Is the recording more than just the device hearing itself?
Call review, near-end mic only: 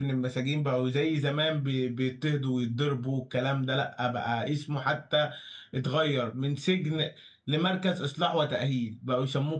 Yes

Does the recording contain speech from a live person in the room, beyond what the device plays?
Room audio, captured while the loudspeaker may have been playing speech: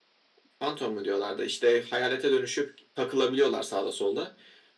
No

